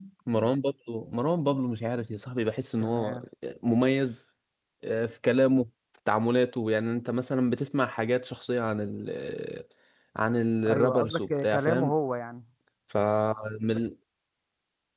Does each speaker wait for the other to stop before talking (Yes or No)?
No